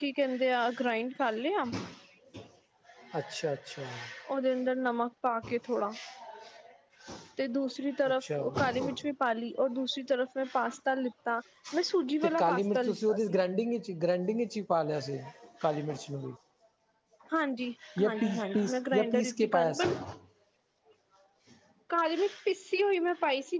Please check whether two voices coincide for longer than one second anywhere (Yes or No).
Yes